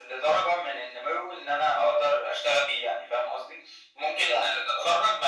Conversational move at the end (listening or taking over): listening